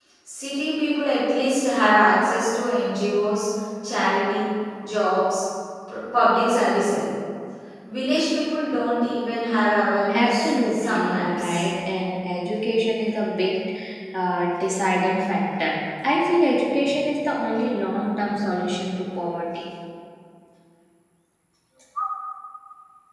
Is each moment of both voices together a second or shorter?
No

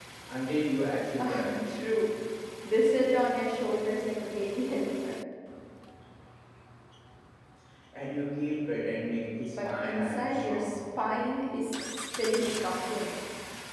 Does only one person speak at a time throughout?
No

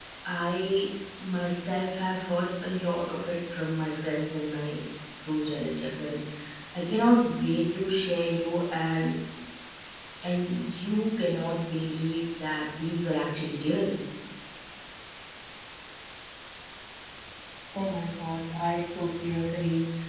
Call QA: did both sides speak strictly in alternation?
Yes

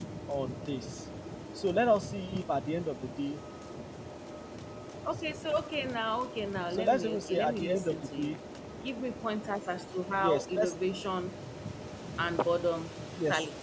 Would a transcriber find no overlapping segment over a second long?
No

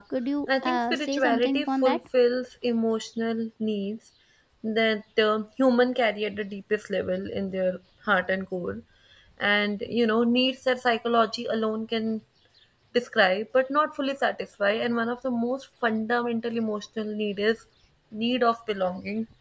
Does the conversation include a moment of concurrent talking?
Yes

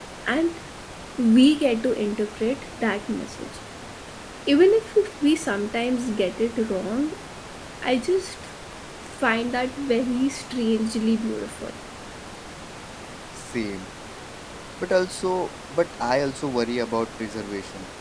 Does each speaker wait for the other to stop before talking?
Yes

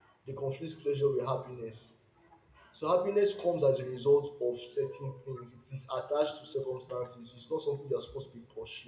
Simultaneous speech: No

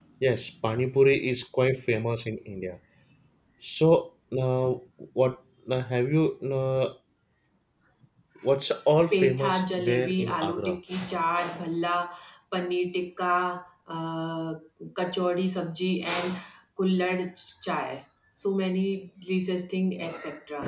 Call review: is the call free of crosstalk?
No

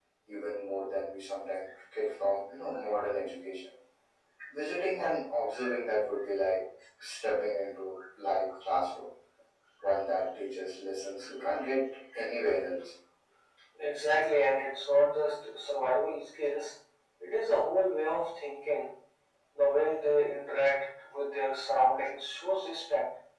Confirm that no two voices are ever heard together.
Yes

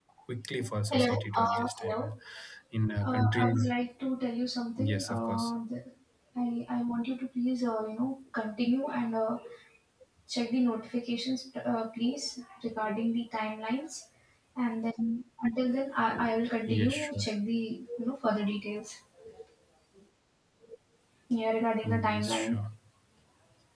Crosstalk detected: Yes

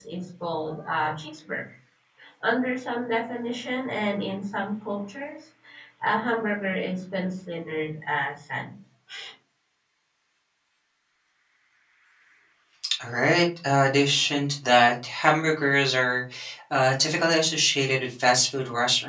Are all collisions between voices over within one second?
Yes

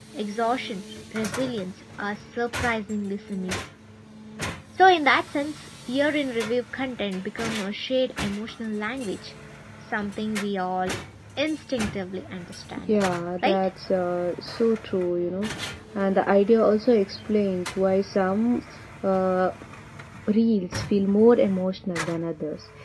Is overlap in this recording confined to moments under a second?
Yes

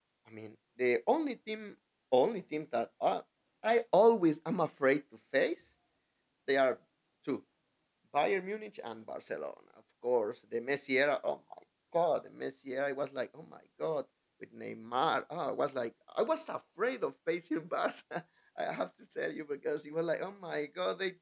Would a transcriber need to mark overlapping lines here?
No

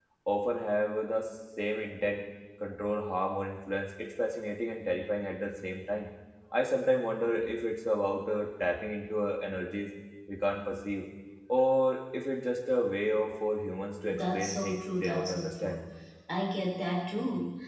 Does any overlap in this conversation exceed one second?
Yes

